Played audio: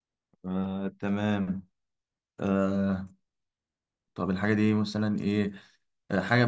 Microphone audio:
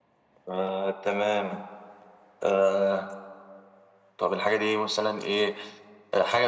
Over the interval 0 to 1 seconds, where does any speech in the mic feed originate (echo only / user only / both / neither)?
echo only